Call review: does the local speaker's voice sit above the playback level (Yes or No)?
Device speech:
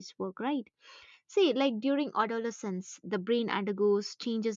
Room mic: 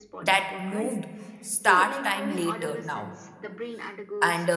Yes